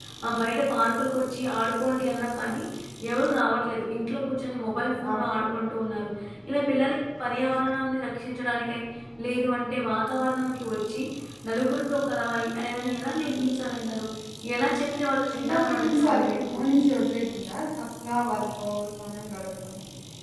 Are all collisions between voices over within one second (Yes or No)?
No